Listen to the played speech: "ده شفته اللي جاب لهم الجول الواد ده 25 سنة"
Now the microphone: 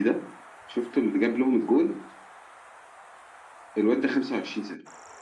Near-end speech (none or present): none